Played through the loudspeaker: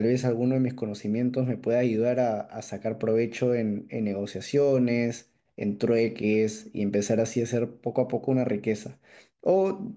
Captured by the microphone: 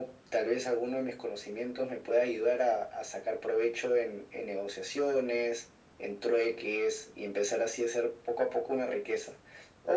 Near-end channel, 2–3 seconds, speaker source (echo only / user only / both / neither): echo only